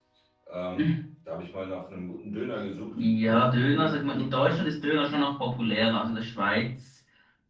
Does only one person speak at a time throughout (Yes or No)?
No